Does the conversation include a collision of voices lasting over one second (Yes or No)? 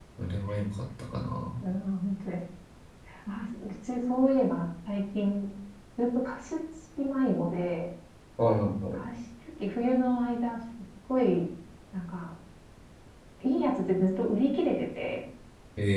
No